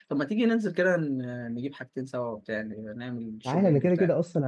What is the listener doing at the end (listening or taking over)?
taking over